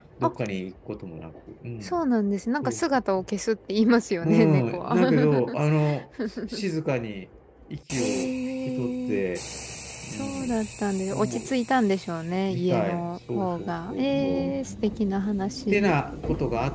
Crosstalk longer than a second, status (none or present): present